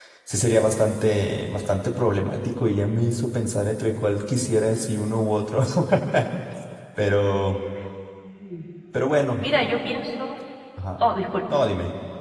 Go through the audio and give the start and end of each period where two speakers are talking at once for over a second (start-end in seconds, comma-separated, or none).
none